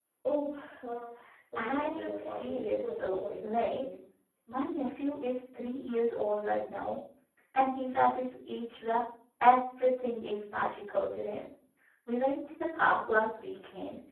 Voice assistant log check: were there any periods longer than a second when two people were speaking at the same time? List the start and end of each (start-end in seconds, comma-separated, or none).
1.6-3.8